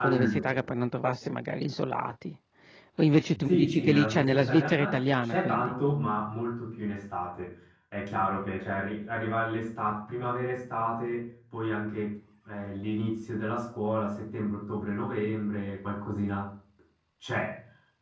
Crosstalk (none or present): present